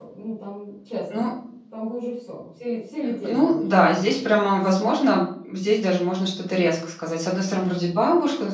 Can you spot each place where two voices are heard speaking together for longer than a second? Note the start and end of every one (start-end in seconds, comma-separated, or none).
none